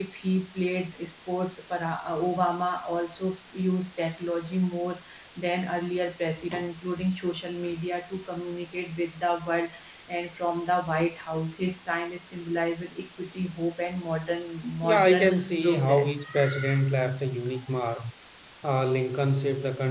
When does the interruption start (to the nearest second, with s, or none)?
15 s